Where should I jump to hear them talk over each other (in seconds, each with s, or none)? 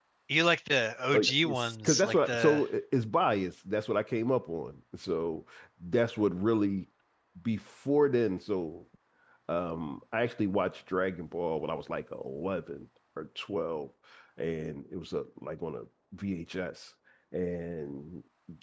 1.1 s